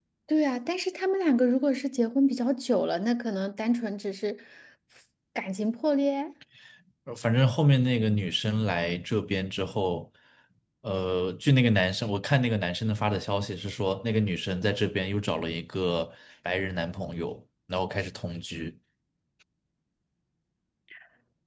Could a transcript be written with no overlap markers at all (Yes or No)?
Yes